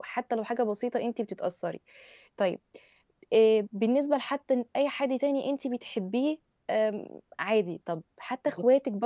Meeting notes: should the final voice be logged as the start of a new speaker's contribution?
No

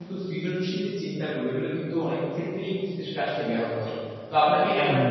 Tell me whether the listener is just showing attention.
Yes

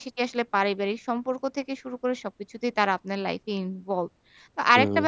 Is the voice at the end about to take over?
No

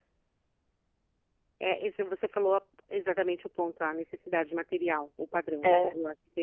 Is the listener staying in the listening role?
Yes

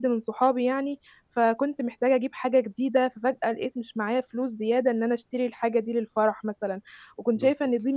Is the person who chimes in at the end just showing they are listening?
Yes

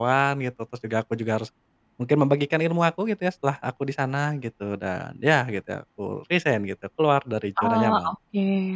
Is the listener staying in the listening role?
No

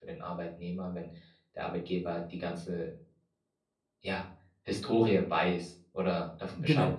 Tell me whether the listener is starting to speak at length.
Yes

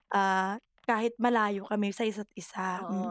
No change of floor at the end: No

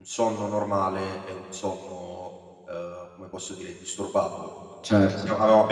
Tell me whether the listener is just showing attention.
Yes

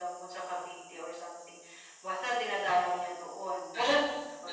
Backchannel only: No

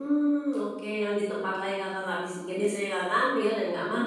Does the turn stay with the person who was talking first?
Yes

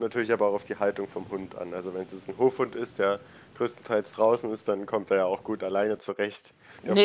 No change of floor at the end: No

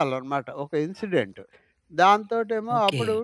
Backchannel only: Yes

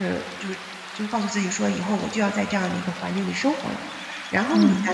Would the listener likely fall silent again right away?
Yes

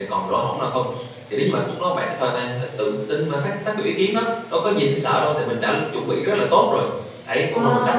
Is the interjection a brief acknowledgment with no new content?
No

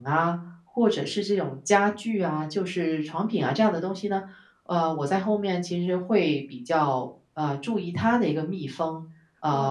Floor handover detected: Yes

